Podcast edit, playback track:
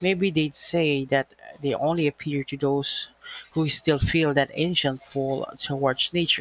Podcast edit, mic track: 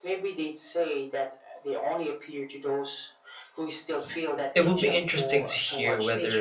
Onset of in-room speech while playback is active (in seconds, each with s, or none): 4.5 s